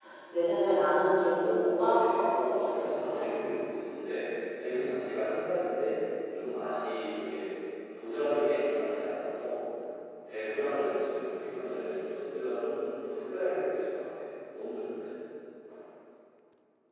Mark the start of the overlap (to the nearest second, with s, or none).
1 s